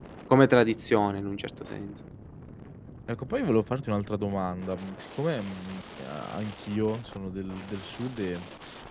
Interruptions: none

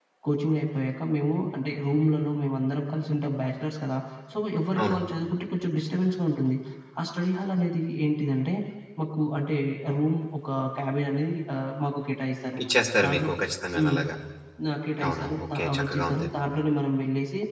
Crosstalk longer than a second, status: present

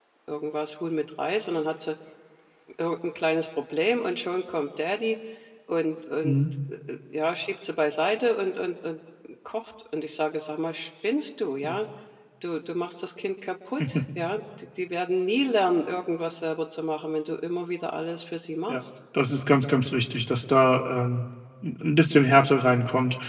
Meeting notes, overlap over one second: none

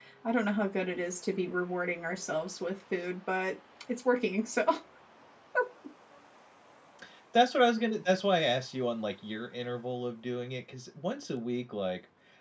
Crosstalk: none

